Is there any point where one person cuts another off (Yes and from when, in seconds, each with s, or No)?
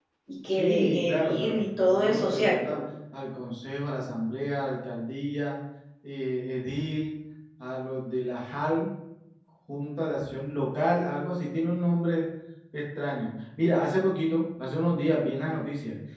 Yes, from 0.5 s